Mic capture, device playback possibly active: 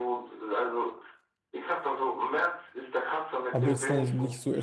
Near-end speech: present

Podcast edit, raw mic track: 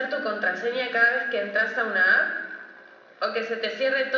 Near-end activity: none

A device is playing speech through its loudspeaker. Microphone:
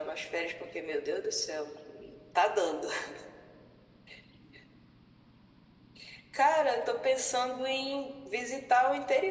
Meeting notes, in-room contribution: none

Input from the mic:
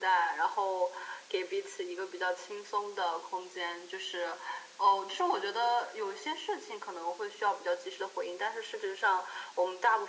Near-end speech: none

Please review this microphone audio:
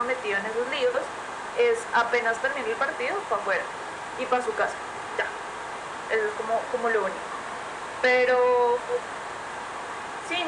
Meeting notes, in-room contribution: none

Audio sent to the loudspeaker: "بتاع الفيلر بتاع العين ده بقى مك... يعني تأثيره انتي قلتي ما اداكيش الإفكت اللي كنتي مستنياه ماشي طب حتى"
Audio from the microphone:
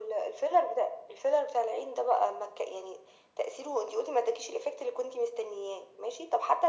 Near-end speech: none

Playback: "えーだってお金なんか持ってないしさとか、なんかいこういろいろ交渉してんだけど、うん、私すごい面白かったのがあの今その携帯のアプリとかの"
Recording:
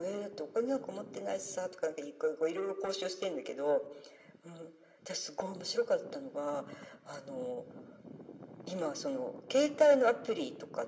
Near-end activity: none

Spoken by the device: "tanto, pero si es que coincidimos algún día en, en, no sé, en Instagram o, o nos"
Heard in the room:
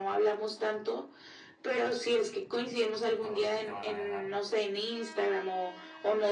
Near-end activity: present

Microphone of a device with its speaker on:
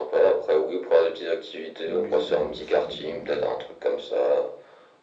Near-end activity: present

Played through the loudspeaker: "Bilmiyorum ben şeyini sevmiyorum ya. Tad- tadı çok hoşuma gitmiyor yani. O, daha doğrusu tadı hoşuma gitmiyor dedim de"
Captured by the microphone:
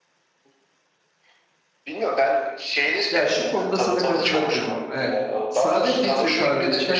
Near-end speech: present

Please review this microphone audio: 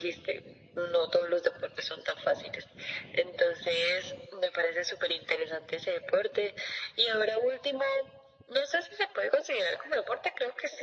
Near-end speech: none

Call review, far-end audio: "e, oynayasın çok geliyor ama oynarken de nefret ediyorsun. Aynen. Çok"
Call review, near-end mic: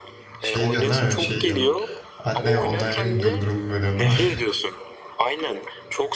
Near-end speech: present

